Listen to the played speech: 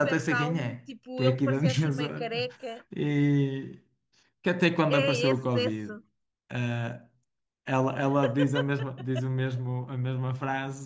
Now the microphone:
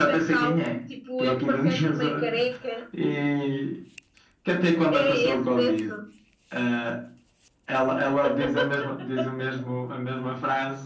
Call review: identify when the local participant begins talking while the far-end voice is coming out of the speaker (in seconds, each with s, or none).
none